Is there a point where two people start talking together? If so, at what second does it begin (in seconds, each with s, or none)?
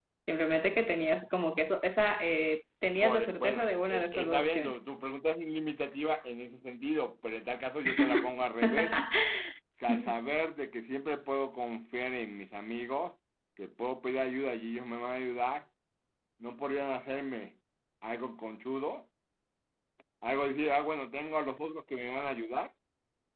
3.0 s